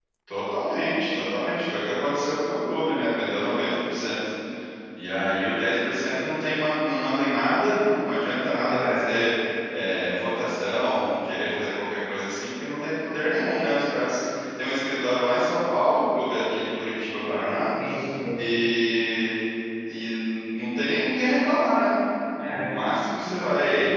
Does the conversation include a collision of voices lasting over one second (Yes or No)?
No